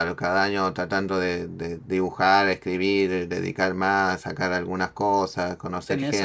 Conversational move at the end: taking over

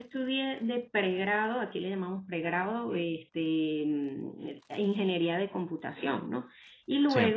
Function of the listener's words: listening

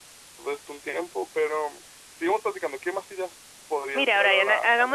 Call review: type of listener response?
taking over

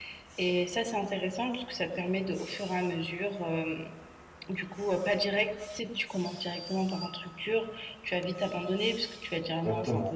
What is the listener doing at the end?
taking over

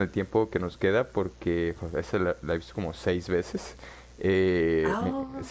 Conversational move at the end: listening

